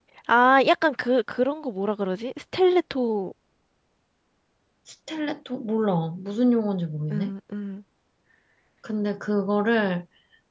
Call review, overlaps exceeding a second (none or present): none